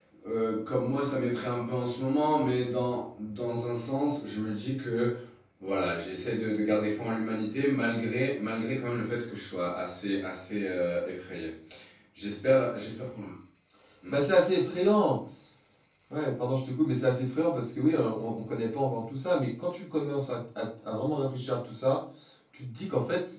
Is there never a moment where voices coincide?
Yes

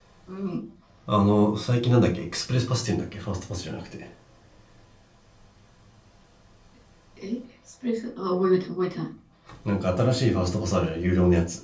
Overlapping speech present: No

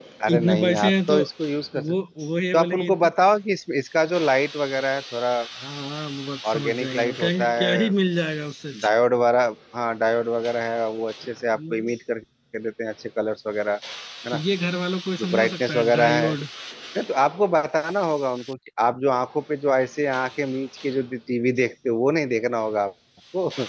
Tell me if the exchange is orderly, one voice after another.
No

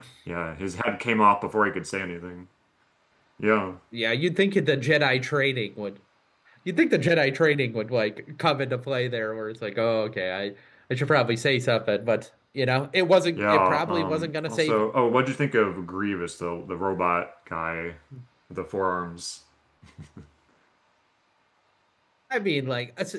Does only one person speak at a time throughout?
No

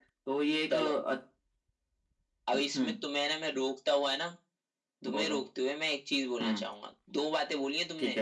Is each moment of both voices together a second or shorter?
Yes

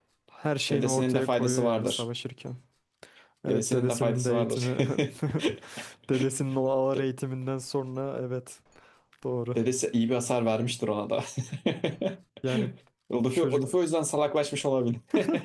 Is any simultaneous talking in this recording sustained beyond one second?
Yes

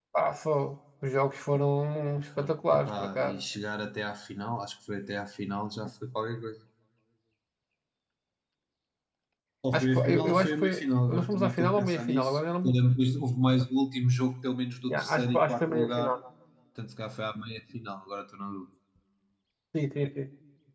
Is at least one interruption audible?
Yes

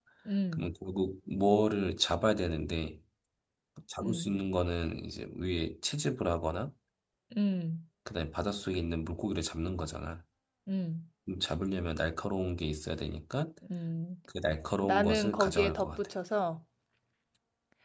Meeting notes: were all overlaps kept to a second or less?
No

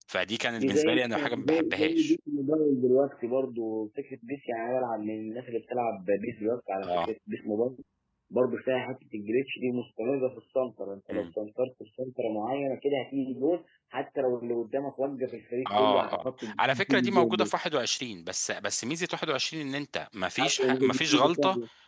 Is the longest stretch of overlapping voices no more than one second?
No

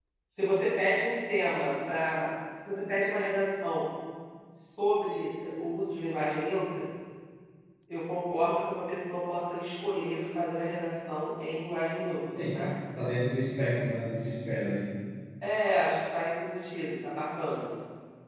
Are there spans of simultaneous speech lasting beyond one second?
No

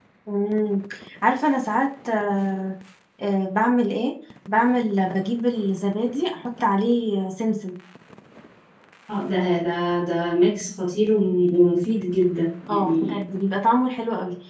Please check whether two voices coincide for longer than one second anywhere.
No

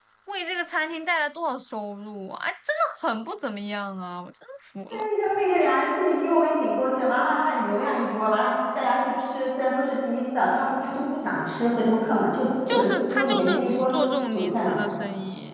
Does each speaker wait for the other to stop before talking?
No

